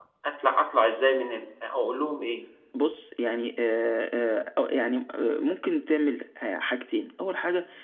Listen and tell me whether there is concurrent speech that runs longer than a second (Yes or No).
No